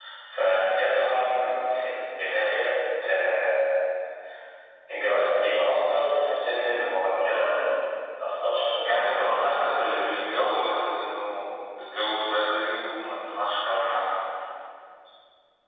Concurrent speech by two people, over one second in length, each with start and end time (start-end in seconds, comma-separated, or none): none